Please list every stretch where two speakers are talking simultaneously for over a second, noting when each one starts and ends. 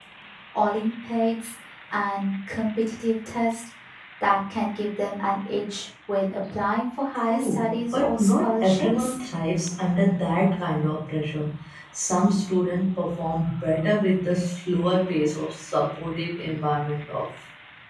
7.1-9.2

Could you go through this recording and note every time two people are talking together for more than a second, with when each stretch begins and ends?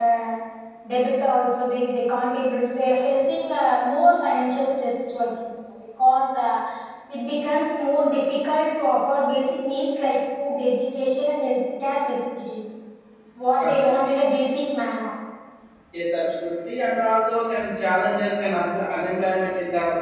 none

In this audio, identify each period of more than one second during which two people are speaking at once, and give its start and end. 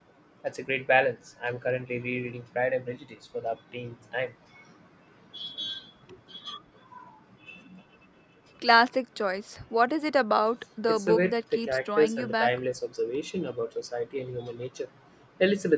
10.9-12.5

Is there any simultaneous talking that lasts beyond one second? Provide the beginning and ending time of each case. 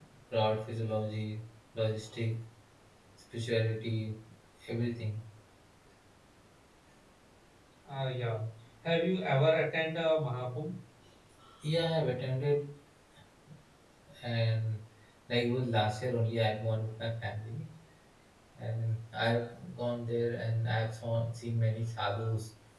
none

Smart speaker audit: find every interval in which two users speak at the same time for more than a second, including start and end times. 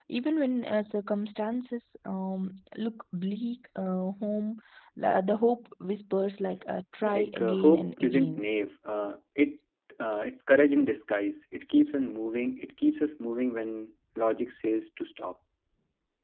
7.0-8.4

